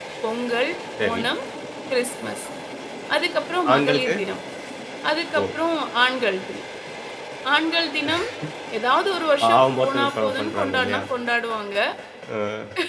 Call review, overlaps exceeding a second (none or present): present